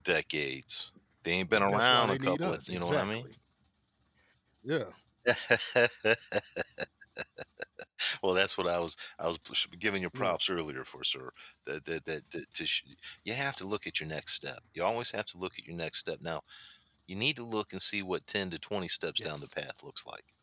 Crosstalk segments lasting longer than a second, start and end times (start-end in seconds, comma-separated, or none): 1.6-3.3